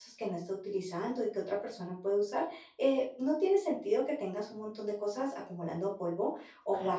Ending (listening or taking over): listening